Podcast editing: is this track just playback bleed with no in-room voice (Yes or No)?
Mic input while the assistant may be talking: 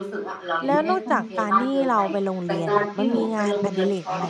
No